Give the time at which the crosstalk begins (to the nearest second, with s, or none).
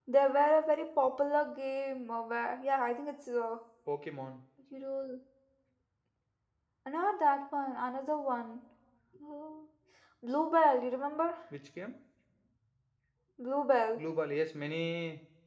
none